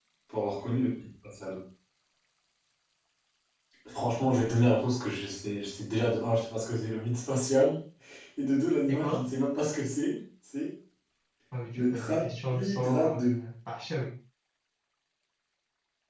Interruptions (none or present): present